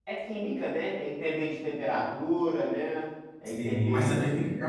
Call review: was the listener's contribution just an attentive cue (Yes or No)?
No